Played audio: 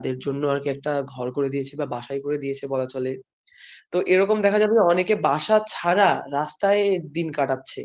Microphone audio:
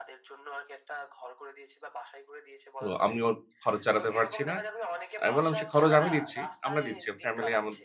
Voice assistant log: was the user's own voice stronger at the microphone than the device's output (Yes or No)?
Yes